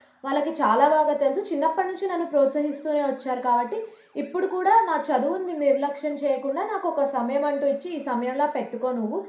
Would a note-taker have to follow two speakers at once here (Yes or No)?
No